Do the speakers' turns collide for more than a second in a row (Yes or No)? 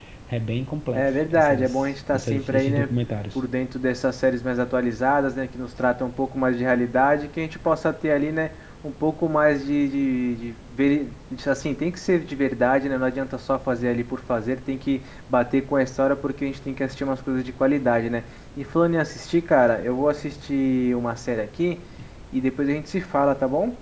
Yes